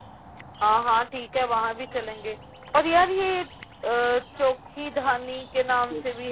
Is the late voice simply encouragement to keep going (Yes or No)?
No